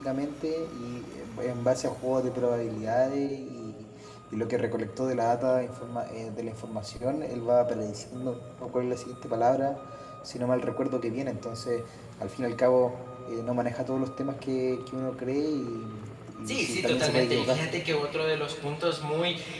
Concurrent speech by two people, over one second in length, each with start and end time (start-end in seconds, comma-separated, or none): 16.4-17.6